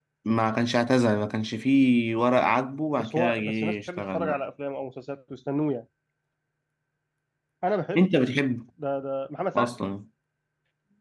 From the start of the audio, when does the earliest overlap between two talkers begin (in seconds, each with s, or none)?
3.0 s